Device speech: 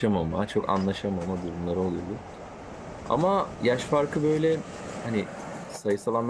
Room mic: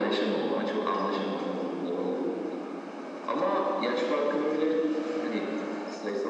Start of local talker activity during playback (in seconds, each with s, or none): none